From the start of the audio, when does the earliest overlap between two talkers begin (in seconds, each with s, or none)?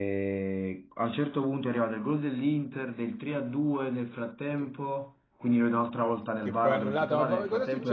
6.4 s